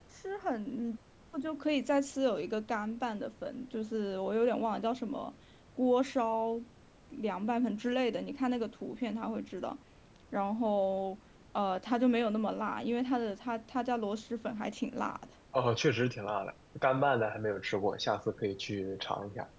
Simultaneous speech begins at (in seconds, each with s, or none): none